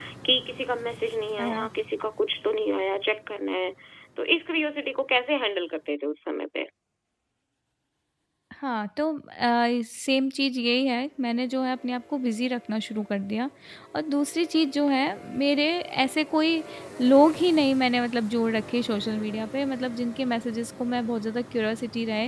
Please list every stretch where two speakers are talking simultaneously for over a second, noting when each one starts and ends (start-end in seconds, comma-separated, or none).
none